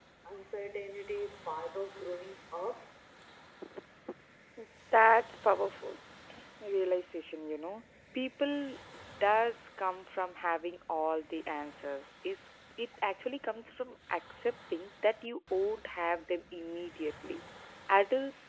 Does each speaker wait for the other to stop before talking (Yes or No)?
Yes